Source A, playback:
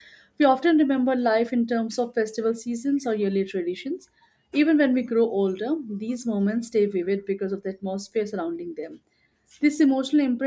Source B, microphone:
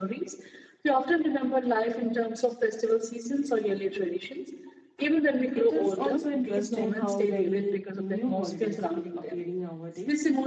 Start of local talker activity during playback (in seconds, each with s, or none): 5.5 s